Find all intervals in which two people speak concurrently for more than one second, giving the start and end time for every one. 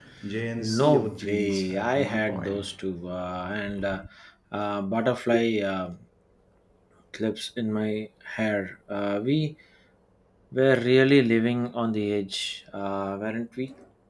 0.6-2.7

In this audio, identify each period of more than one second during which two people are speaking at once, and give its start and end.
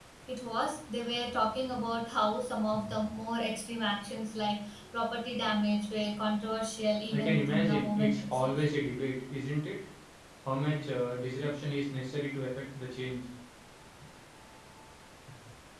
7.1-8.5

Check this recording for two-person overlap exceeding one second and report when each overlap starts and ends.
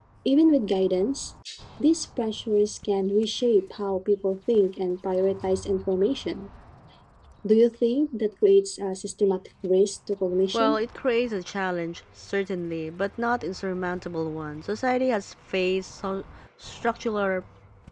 none

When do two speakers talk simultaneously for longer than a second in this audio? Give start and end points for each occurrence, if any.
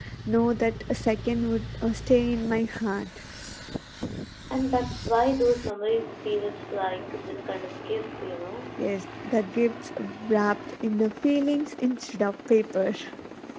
none

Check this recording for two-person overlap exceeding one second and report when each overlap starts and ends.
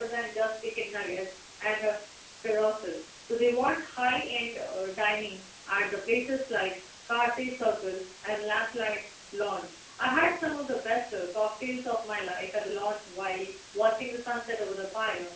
none

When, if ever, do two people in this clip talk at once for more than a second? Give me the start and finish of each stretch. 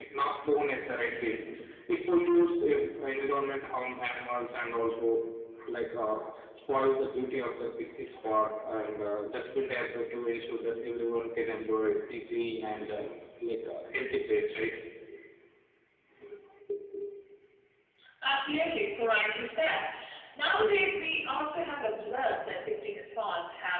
none

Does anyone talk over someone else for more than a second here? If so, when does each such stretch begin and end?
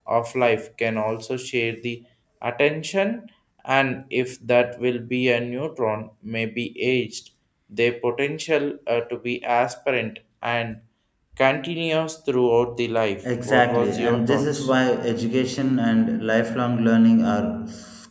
13.2-14.7

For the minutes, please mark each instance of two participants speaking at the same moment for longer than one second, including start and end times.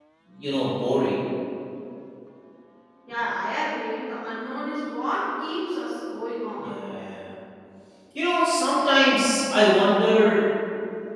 none

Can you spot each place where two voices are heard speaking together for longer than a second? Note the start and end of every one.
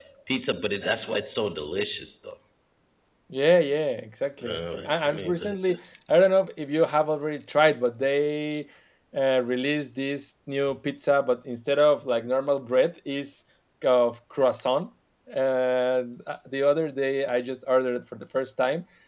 4.5-5.7

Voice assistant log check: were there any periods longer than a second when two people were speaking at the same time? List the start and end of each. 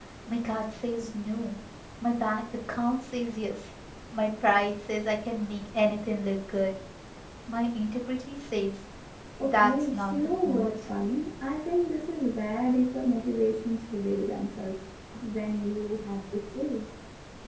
9.4-10.9

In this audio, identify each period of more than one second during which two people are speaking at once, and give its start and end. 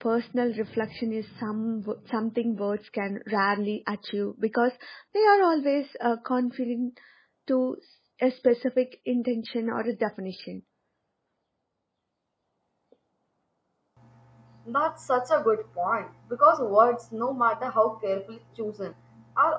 none

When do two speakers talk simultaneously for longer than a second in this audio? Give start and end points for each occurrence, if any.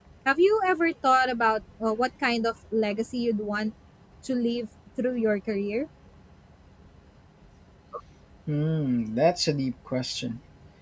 none

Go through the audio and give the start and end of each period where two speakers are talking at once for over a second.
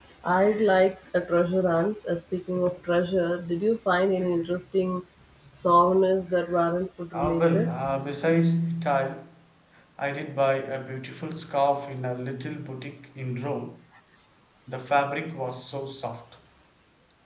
none

